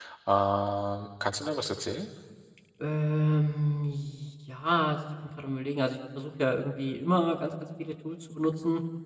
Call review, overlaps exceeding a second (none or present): none